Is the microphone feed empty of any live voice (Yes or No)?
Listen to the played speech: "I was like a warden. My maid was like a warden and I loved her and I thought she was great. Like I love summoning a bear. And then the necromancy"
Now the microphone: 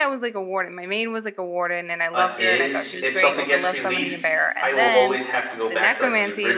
No